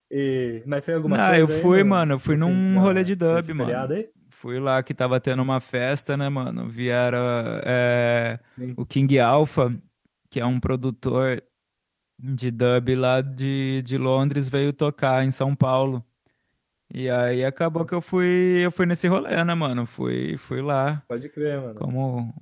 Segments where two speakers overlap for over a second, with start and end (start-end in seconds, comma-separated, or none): 1.0-3.9